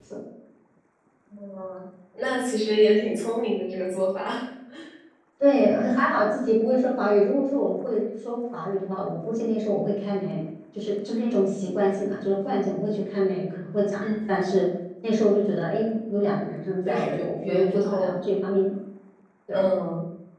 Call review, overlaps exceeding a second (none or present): present